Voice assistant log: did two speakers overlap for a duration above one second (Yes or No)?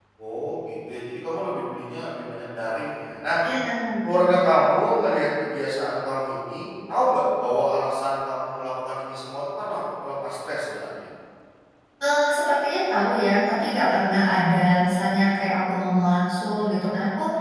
No